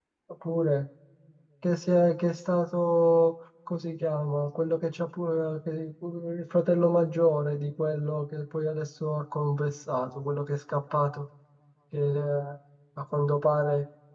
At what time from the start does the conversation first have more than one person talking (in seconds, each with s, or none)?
none